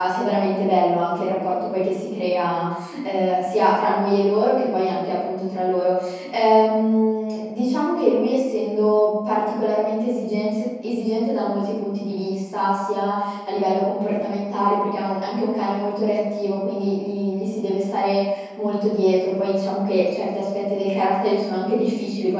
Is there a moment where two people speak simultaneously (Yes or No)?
No